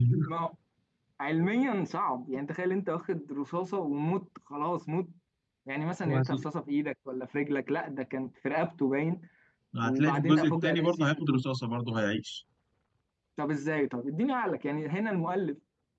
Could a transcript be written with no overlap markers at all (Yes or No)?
No